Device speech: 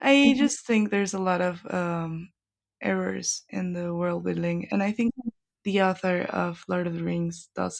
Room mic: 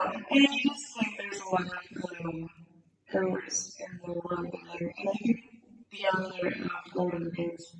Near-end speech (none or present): none